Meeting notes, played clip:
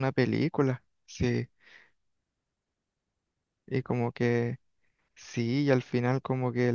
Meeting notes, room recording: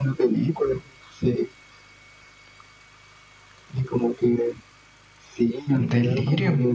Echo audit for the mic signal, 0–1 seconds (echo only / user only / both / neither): echo only